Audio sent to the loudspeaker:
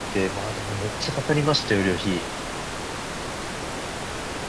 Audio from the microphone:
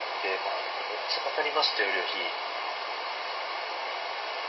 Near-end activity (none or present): none